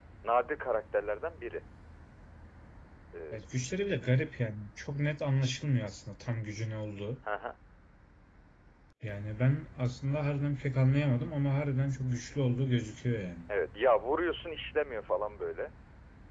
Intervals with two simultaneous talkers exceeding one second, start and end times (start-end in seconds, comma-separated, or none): none